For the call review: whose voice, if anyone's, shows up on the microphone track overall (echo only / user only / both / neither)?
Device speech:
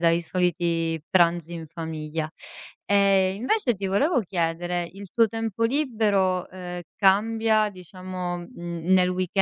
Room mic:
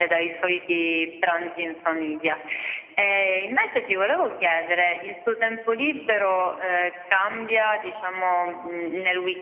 echo only